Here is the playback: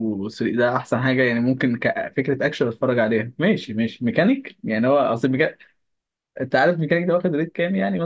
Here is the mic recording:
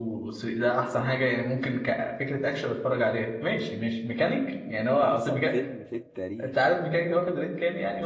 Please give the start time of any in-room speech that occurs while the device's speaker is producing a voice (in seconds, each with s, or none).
5.0 s